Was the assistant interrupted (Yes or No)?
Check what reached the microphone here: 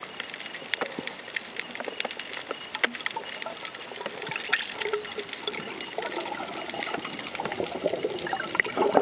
No